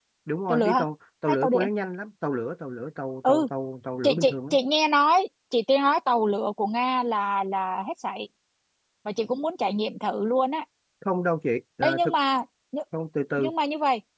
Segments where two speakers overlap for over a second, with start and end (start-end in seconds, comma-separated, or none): none